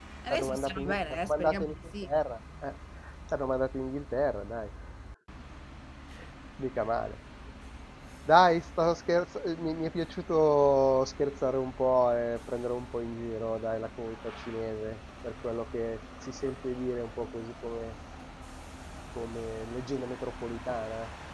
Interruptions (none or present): present